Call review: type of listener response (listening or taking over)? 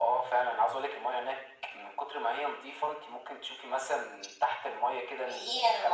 taking over